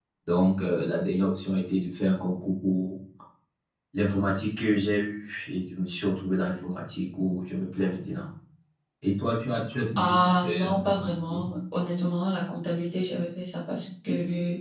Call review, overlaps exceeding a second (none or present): present